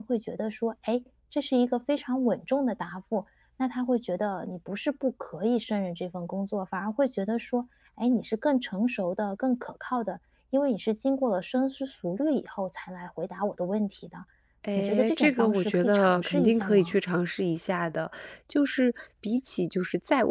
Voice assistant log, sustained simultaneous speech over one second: present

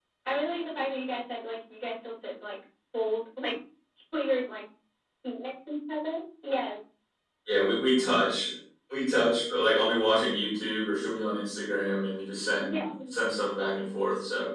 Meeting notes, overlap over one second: none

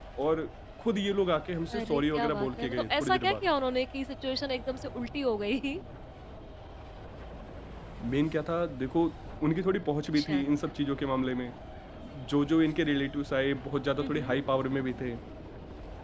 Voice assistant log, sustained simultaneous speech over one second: present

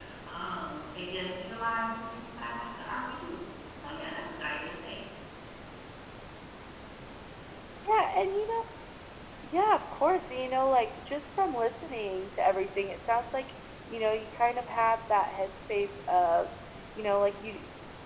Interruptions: none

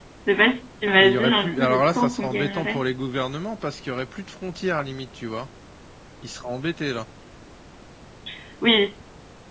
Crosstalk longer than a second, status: present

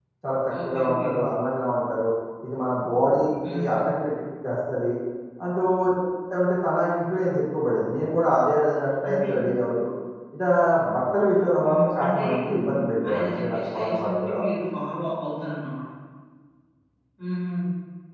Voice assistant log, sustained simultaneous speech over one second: present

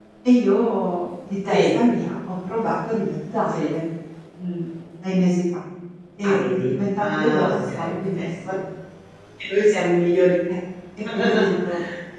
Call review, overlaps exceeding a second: present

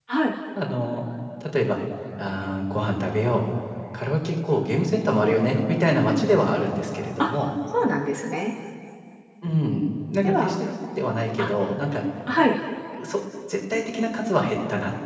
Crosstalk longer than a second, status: none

